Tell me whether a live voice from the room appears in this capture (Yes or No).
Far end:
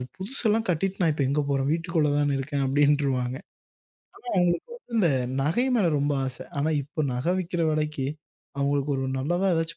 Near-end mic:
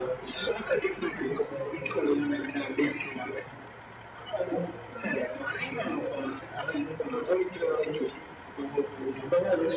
No